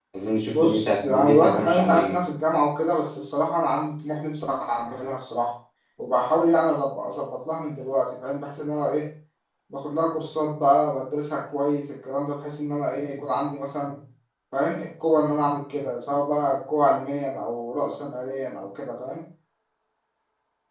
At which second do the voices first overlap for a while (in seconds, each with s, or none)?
0.5 s